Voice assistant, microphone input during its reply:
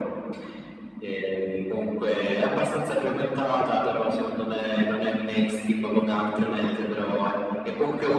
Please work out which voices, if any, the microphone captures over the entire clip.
echo only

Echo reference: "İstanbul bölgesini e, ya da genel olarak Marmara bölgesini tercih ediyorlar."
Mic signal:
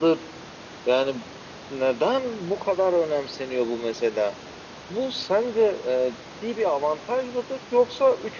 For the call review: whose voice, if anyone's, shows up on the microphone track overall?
user only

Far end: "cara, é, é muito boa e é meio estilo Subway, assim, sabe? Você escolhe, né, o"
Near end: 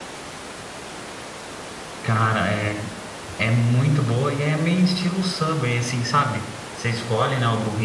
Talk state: echo only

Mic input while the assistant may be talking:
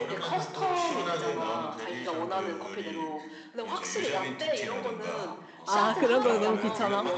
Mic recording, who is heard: both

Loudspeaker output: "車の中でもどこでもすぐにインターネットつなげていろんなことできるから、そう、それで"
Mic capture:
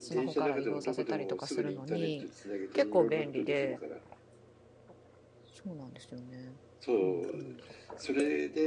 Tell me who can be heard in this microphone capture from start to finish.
both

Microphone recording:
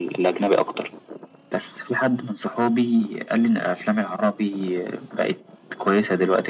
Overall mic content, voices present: echo only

